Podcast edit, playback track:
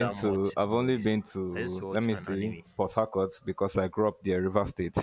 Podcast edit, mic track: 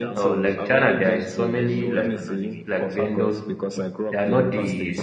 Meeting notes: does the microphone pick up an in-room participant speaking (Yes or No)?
Yes